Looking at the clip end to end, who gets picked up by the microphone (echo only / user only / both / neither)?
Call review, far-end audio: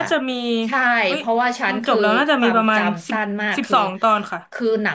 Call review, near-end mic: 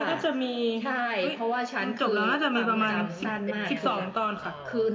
both